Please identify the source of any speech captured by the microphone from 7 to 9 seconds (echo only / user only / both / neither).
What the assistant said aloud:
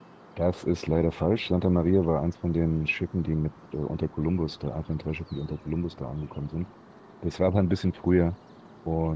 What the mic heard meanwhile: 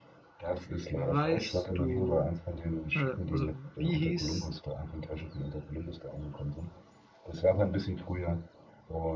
echo only